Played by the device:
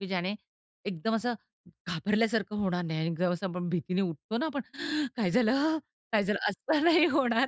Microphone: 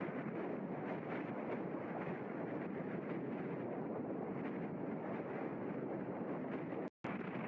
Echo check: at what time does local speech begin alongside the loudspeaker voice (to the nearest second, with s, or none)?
none